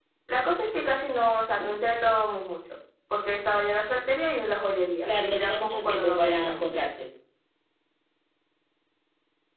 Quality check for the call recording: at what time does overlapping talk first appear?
5 s

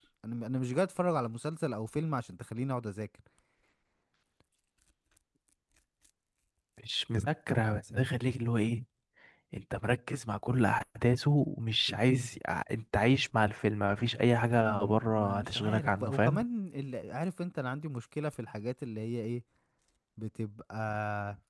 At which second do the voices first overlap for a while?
15 s

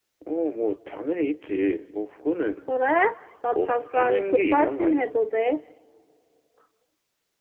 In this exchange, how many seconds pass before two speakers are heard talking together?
4 s

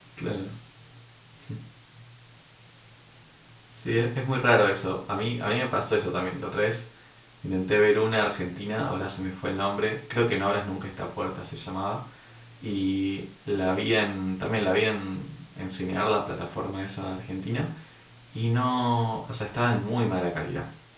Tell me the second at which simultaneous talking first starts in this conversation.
none

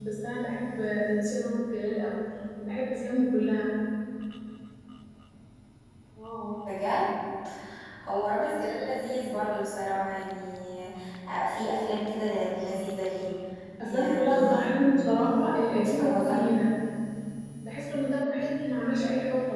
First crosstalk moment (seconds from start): 14 s

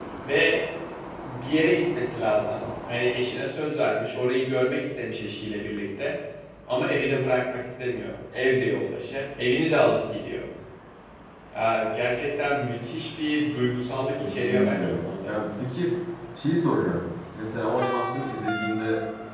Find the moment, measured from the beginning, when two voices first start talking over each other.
14 s

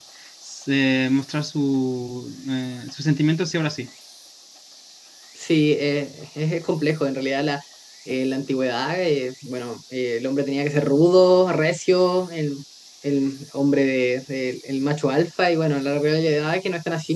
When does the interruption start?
none

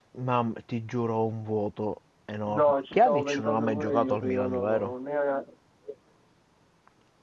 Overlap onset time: 2 s

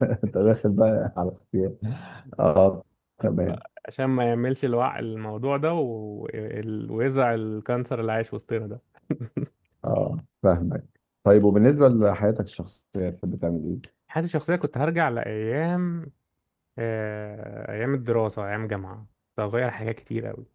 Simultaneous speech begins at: none

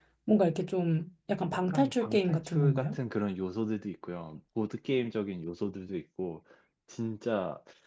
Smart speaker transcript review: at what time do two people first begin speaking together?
2 s

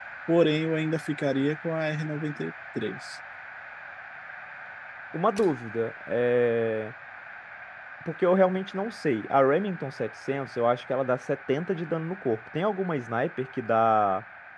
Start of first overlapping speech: none

